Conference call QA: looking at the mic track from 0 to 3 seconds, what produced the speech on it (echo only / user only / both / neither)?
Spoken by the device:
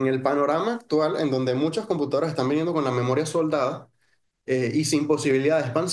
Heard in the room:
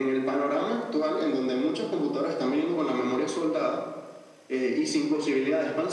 echo only